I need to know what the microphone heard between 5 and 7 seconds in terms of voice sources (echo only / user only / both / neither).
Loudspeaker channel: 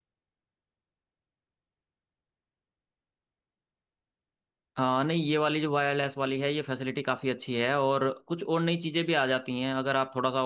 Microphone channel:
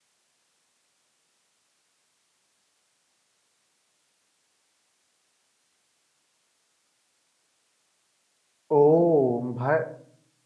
neither